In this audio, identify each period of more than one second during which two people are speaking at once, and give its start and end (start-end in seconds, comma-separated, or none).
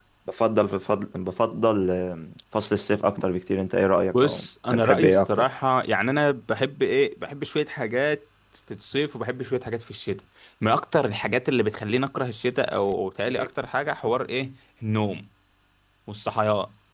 4.1-5.4